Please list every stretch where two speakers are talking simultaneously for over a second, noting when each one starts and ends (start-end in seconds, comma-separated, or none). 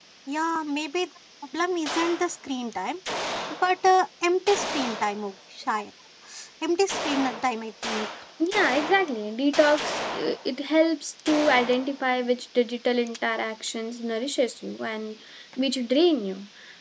none